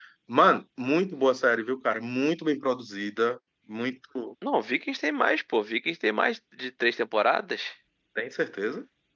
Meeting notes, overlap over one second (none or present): none